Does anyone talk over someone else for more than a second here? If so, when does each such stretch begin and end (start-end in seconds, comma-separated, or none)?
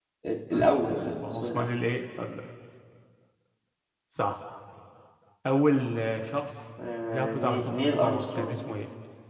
7.1-8.6